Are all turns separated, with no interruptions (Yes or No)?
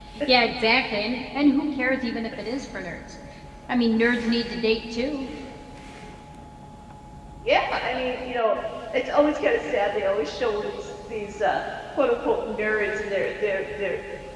Yes